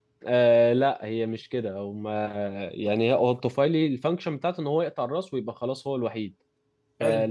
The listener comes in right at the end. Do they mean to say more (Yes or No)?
No